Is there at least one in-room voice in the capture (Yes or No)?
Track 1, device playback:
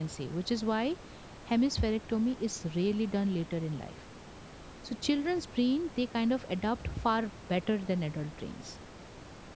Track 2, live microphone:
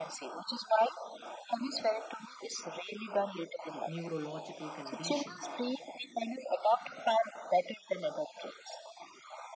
Yes